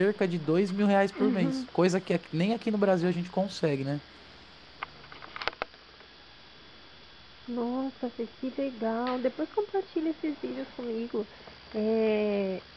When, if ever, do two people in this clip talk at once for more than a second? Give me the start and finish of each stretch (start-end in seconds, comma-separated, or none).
none